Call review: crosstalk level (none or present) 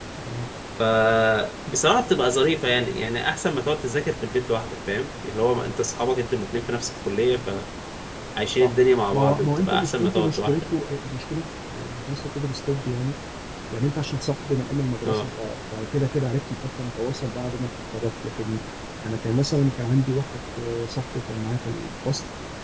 present